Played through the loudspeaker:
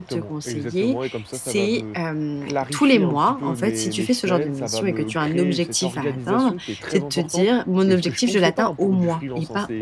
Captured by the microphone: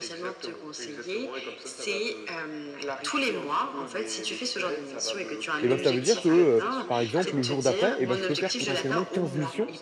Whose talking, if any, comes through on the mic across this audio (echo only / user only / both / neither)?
both